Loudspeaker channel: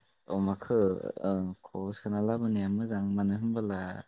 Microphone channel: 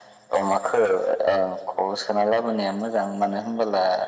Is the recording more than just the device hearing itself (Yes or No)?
No